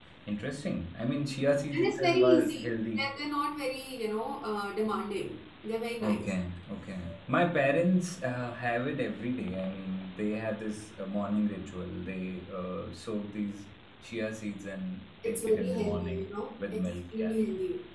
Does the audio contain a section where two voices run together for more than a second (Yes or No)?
Yes